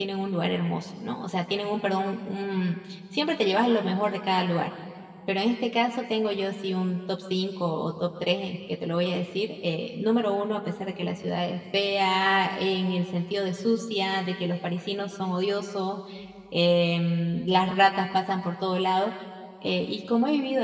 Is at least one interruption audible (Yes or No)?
No